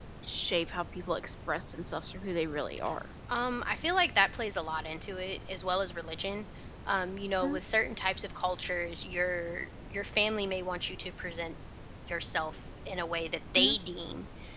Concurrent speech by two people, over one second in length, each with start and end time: none

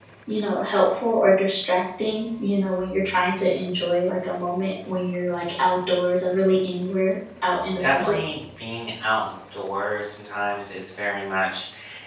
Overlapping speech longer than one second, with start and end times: none

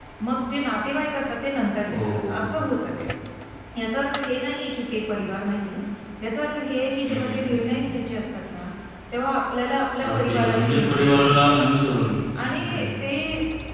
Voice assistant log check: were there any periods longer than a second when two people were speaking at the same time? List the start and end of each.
10.1-11.8

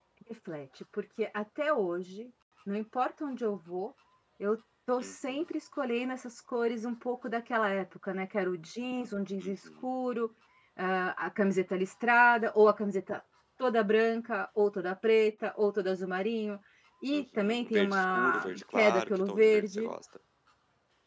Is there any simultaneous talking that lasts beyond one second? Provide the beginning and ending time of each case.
17.1-19.9

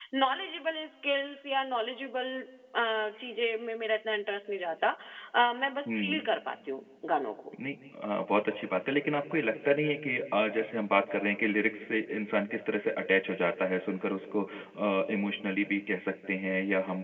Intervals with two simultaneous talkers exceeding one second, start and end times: none

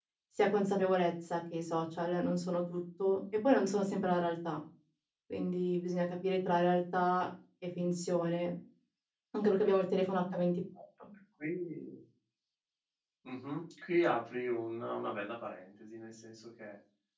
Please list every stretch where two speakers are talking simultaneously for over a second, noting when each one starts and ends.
none

